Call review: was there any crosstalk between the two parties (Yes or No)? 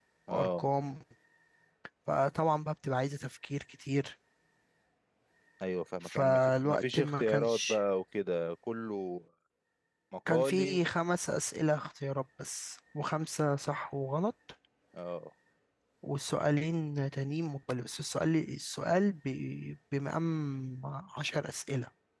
Yes